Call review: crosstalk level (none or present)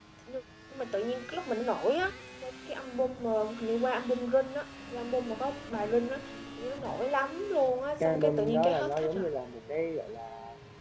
present